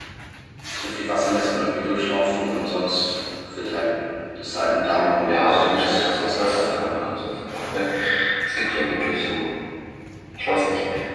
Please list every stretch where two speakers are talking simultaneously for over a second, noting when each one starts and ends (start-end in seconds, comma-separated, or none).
5.2-7.0